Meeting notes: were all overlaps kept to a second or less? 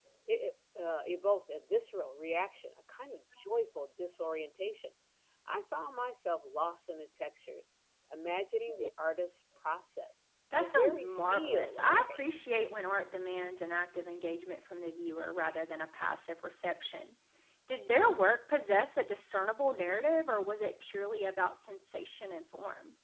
No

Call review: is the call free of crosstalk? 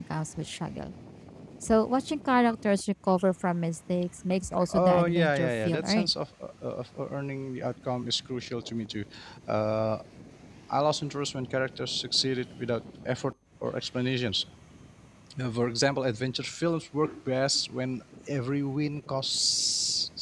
No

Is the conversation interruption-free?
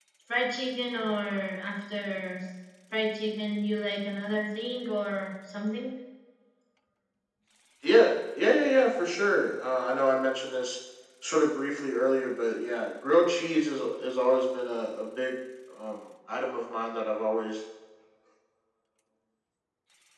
Yes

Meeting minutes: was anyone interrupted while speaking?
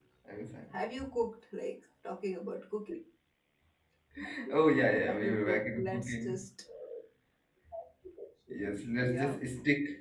Yes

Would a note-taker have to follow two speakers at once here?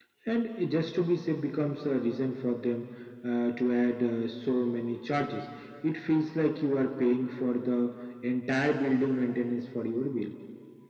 No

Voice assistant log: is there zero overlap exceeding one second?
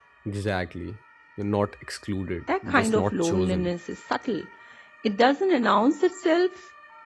No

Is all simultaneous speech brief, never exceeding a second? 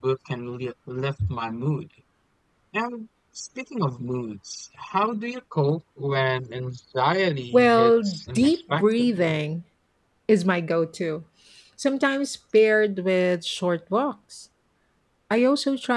No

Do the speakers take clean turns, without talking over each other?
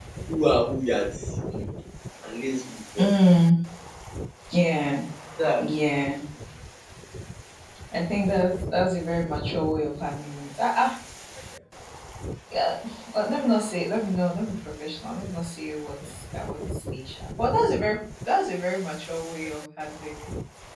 Yes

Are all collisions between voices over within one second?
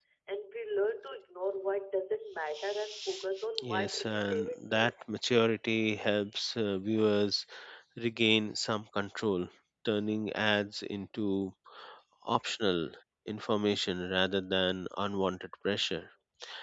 No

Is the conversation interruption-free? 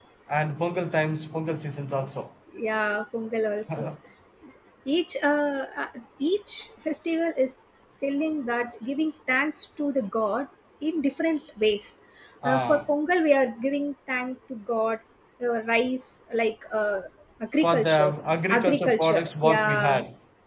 No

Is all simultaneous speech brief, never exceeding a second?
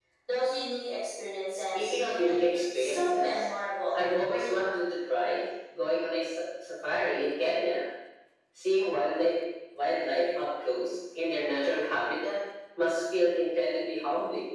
No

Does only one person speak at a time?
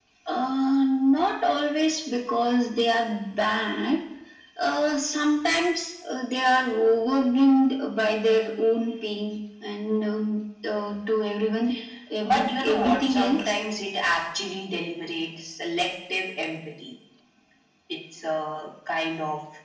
No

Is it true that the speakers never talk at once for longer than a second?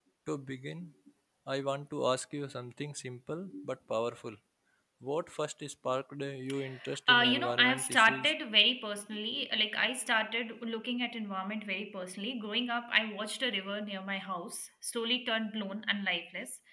No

